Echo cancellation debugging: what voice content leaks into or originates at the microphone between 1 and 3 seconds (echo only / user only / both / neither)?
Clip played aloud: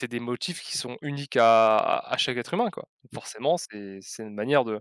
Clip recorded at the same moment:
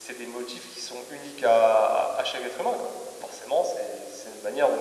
echo only